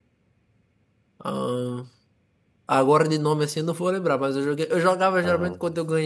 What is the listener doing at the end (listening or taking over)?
listening